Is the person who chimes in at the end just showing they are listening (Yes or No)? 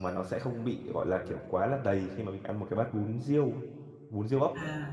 No